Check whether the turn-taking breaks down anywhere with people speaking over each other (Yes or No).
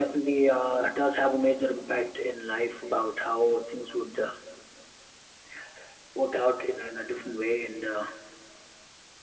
No